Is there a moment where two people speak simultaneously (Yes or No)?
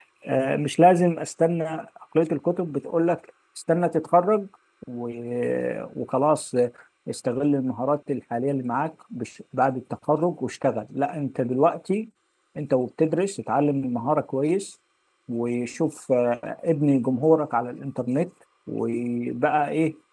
No